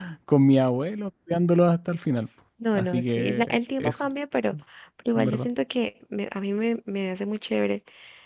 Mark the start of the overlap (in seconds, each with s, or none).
2.8 s